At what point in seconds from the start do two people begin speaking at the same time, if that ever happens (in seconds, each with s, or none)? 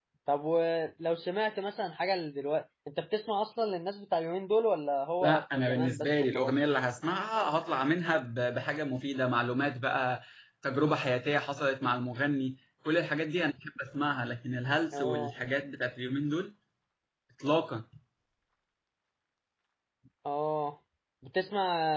5.2 s